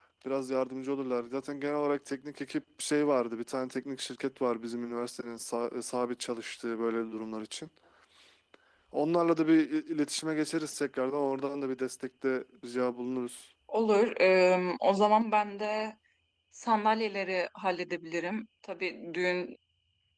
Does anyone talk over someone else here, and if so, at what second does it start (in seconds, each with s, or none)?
none